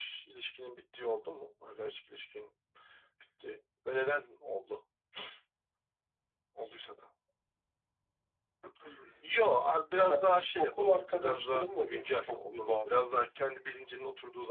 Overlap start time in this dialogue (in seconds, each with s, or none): 9.9 s